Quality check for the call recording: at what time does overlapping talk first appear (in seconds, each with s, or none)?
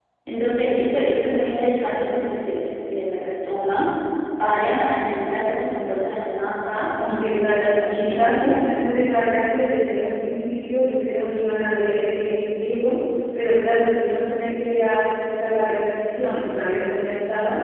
7.0 s